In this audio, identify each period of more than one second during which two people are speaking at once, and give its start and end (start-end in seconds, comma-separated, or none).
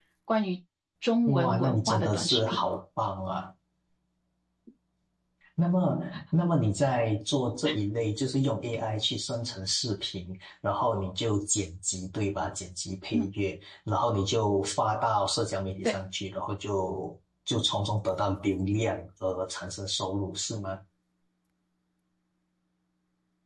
1.3-2.6